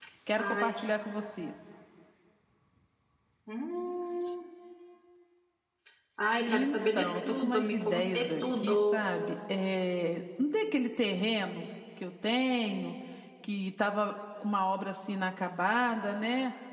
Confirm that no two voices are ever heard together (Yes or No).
No